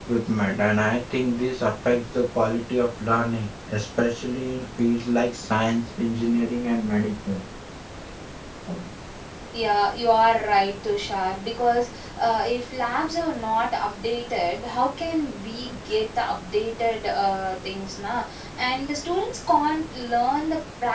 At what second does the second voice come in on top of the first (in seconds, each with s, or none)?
none